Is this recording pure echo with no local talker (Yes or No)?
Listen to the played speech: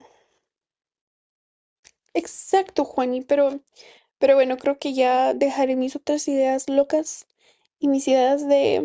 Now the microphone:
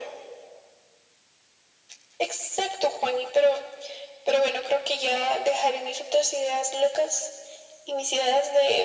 Yes